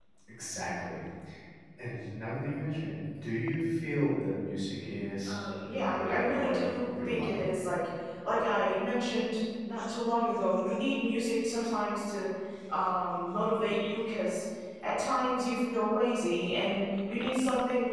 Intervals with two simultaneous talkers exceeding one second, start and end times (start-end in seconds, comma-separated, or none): 5.3-7.4